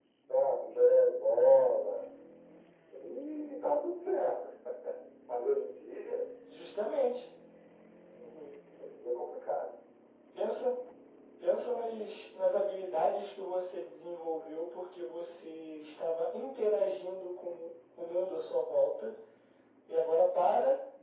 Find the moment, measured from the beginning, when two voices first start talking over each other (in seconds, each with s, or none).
none